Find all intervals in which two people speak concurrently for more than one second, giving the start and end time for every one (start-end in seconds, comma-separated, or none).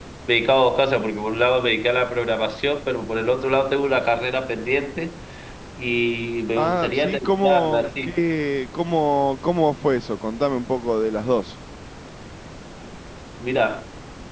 6.6-8.1